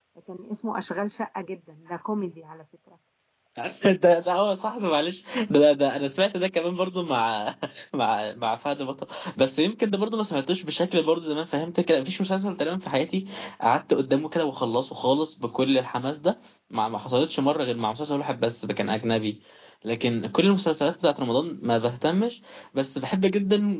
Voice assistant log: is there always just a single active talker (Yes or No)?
Yes